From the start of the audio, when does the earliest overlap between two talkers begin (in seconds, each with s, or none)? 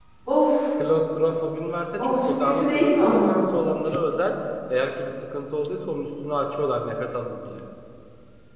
2.0 s